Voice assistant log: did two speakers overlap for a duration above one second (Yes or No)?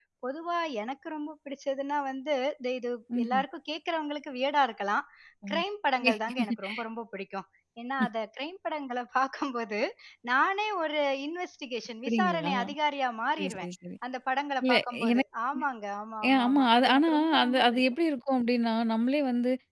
Yes